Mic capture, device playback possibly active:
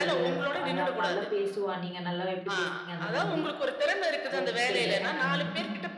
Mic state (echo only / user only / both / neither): both